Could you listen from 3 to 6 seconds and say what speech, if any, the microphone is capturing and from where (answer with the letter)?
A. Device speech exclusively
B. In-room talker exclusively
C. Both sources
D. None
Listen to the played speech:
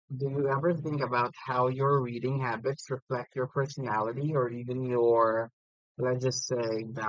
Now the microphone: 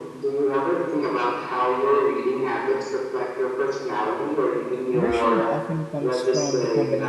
C